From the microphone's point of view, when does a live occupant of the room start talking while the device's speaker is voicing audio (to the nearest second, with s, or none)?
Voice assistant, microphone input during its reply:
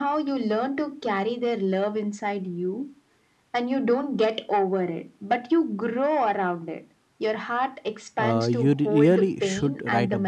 8 s